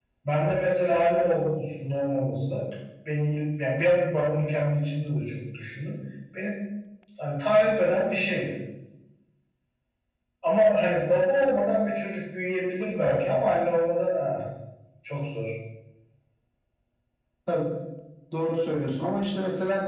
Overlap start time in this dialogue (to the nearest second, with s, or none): none